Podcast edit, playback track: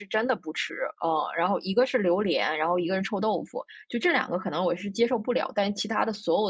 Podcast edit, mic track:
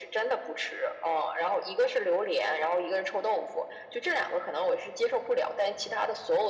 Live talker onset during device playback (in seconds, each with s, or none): none